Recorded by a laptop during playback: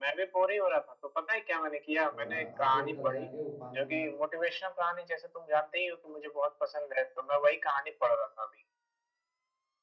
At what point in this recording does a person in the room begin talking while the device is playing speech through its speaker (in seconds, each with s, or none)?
2.1 s